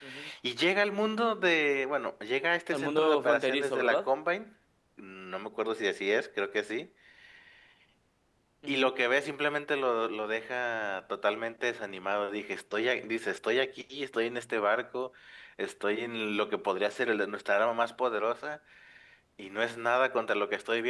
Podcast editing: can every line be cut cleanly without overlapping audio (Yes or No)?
No